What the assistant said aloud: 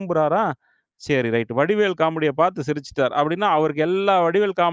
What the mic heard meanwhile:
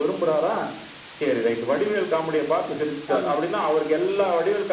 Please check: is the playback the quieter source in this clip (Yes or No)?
No